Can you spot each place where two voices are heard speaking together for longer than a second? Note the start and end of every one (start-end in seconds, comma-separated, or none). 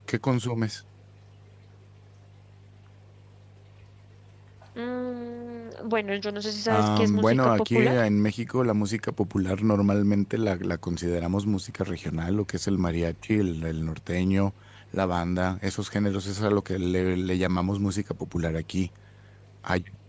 6.7-8.0